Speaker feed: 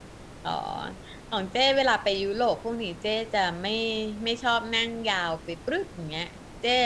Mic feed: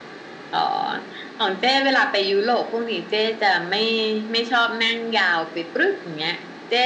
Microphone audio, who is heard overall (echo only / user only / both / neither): echo only